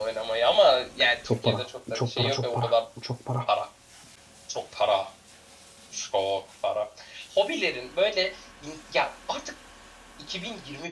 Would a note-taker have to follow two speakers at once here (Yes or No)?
Yes